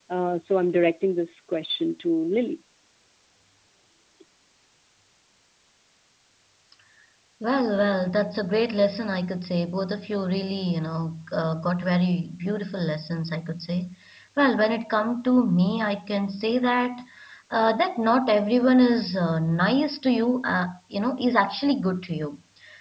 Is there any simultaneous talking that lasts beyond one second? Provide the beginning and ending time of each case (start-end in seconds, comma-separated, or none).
none